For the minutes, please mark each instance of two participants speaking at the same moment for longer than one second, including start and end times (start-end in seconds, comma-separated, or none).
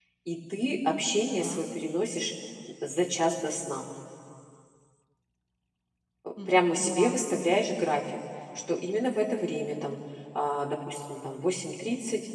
6.5-7.7